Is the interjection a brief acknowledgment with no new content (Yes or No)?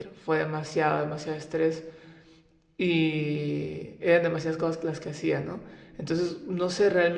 Yes